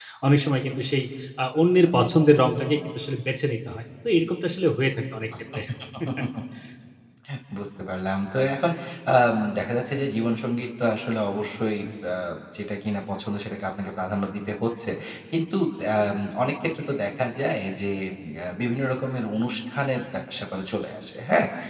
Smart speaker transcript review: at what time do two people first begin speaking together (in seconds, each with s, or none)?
none